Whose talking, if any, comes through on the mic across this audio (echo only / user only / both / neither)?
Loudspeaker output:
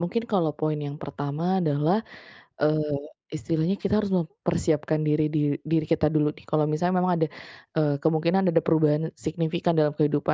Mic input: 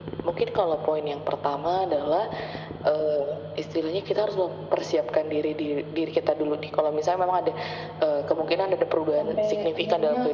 both